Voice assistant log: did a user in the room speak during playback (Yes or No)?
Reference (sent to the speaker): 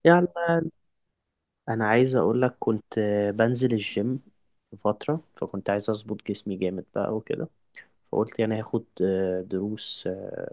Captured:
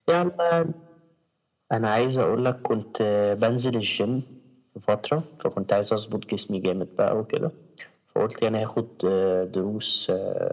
No